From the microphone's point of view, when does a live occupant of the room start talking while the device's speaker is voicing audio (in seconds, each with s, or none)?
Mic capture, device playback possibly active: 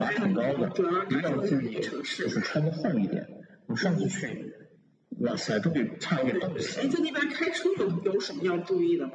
none